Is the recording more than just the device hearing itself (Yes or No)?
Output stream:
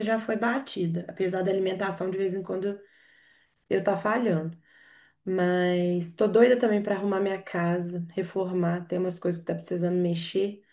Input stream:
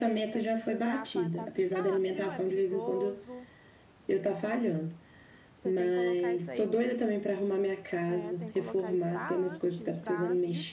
Yes